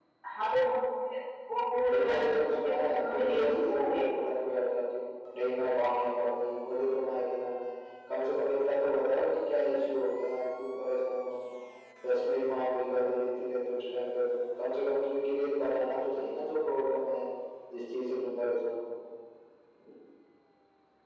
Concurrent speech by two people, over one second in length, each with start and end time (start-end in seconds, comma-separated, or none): 1.9-4.0